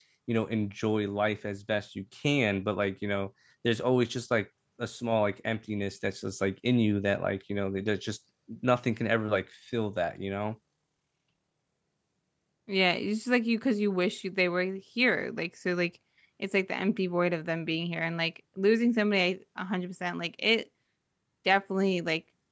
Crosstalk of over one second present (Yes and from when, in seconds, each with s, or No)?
No